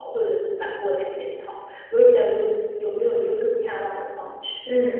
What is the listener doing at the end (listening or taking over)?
listening